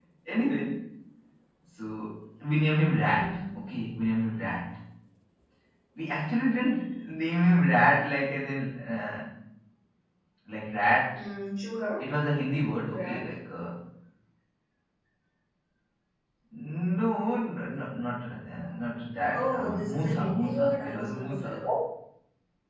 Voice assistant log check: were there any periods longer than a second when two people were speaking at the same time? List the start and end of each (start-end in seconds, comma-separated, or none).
19.3-21.6